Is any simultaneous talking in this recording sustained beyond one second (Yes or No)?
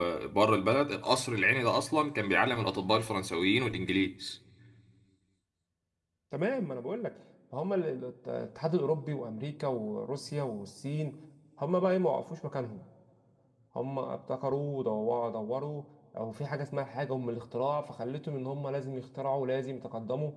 No